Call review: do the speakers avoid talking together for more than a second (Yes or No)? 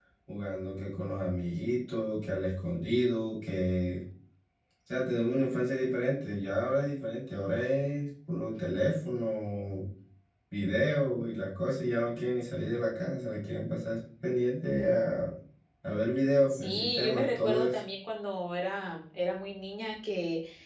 No